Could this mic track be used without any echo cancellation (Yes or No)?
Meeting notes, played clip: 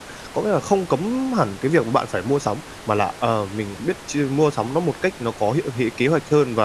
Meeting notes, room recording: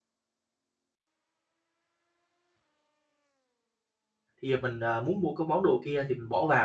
Yes